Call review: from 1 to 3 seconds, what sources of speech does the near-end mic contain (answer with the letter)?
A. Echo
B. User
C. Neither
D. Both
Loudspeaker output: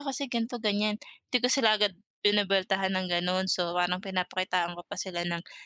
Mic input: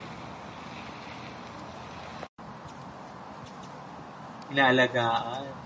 C